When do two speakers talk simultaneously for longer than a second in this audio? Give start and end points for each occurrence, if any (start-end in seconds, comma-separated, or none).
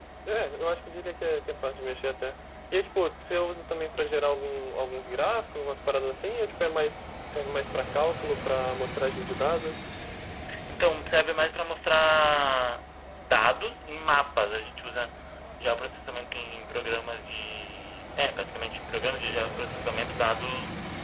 none